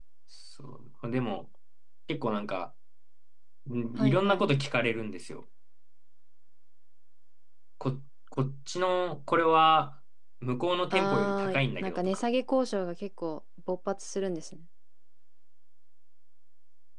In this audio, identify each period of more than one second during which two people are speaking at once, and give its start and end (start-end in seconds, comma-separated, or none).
10.9-12.2